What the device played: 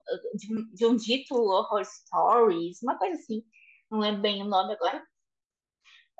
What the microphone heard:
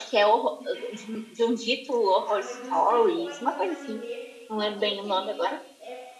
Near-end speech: present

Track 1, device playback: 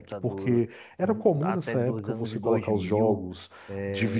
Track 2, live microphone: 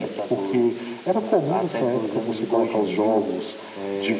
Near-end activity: none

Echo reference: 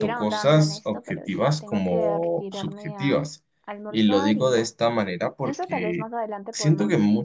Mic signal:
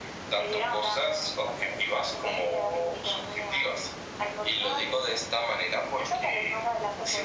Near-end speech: none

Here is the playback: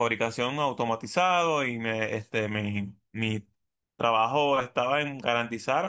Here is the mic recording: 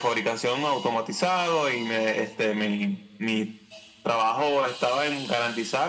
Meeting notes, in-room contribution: none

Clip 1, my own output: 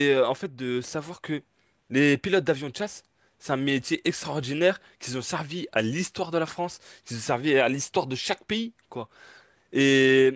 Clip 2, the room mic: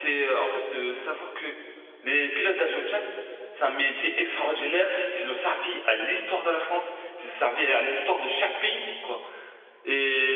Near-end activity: none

